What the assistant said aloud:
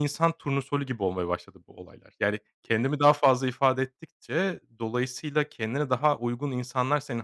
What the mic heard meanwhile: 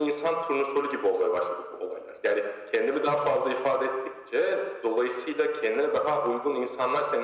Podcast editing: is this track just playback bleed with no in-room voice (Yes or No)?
Yes